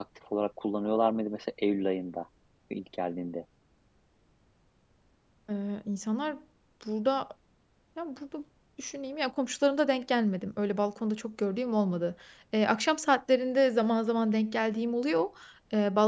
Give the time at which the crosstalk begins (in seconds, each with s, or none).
none